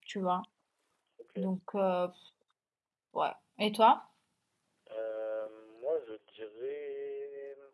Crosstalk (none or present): none